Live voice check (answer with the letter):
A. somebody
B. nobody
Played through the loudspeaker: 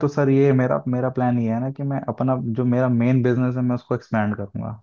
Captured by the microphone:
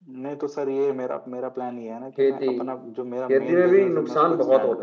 A